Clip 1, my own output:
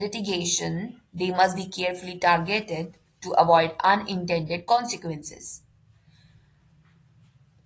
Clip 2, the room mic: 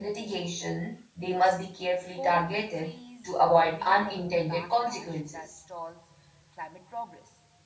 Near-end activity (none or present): present